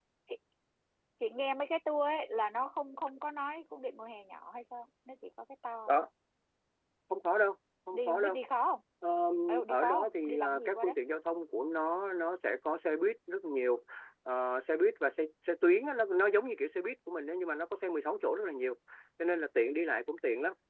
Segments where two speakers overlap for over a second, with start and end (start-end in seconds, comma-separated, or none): 9.7-10.9